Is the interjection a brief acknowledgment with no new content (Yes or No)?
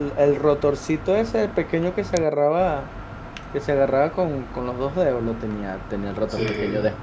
Yes